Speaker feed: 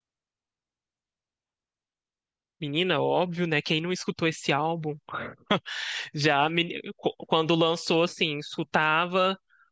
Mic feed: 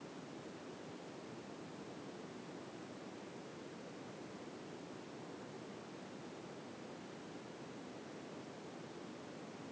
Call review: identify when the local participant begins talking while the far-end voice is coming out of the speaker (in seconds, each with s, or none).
none